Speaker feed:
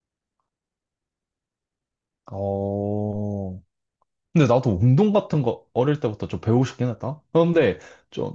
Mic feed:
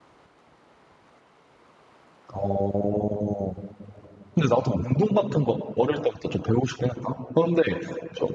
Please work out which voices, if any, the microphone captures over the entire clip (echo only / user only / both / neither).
echo only